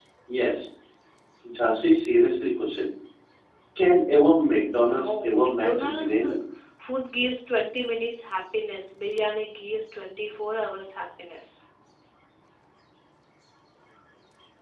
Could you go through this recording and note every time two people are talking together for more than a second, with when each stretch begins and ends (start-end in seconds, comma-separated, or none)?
4.8-6.2